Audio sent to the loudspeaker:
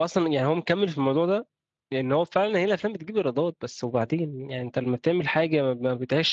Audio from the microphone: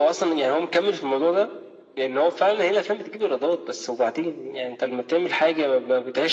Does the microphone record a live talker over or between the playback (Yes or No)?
No